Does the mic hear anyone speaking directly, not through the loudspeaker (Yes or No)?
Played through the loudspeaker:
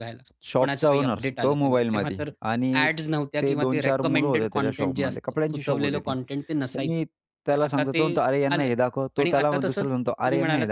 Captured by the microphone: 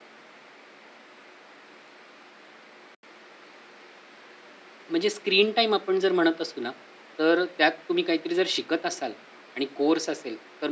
Yes